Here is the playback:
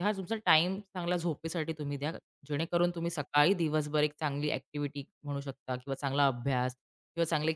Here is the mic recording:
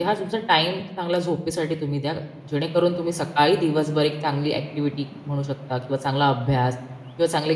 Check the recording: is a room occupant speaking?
No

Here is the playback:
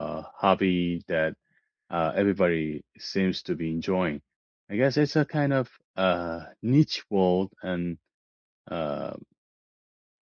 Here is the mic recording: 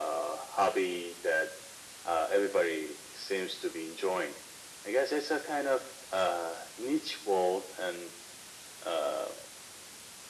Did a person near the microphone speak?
No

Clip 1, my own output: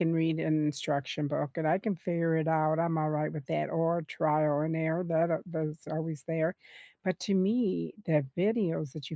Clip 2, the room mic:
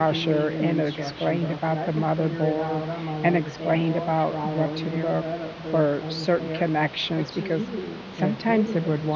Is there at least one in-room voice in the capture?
Yes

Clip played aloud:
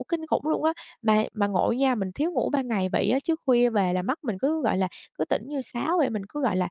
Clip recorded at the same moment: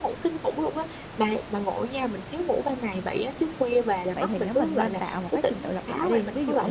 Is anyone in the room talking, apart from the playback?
Yes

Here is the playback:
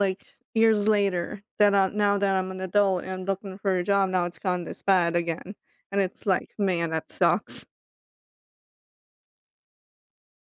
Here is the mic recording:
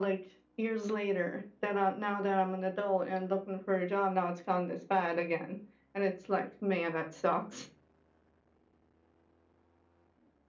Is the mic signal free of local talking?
Yes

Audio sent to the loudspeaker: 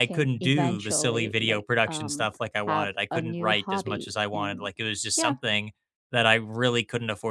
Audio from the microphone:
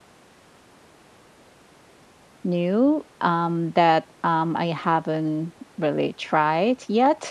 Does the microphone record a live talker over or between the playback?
Yes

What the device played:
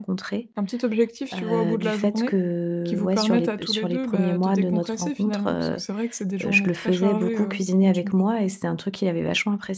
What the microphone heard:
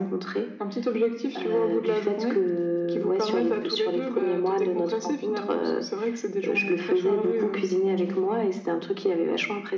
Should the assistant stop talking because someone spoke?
No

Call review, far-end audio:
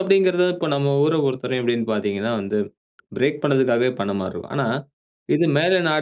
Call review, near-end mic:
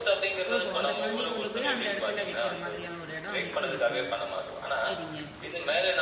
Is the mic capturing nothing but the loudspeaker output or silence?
No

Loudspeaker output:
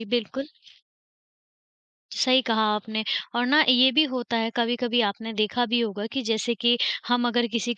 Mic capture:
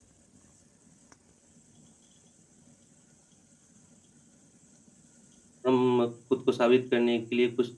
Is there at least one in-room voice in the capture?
Yes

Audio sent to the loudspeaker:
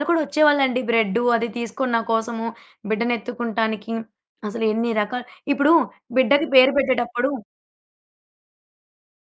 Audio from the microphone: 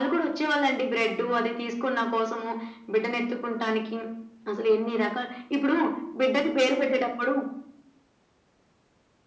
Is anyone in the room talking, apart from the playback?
No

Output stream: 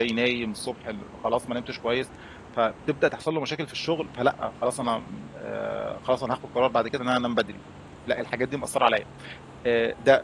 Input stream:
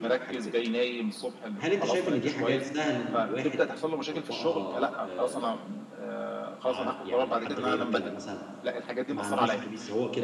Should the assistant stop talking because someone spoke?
Yes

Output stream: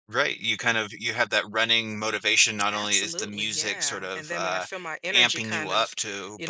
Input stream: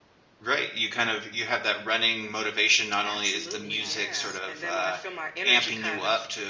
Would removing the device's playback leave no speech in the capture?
No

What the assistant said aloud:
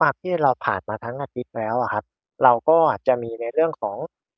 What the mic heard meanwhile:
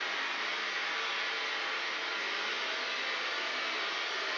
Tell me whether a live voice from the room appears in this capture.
No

